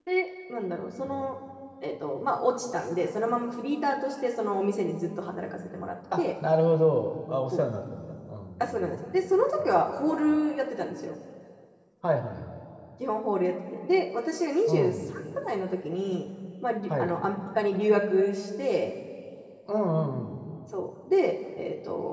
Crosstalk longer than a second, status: none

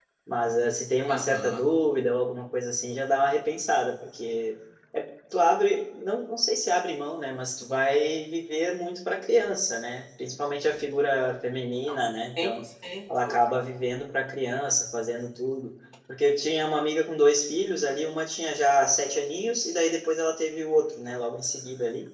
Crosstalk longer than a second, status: none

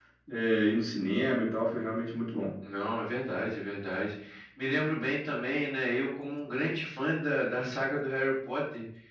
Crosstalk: none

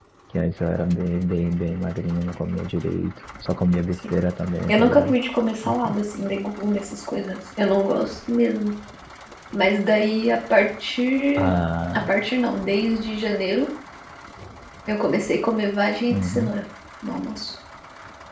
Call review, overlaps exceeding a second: none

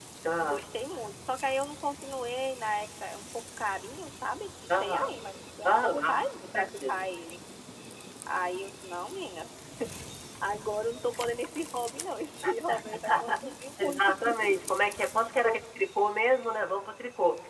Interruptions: present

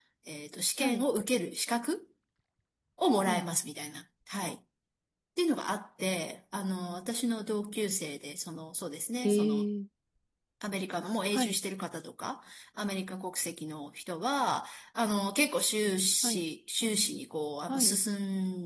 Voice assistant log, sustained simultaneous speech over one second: none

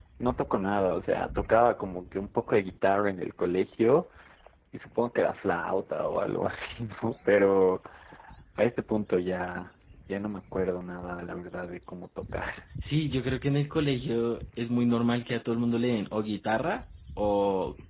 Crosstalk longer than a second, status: none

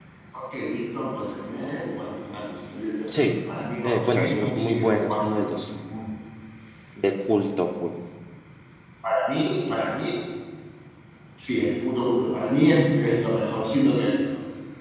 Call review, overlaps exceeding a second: present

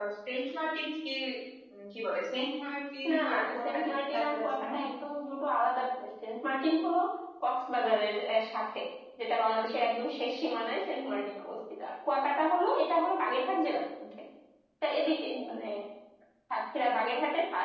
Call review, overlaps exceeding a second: present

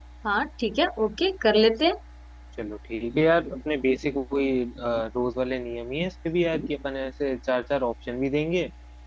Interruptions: none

